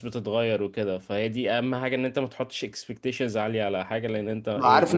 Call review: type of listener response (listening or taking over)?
taking over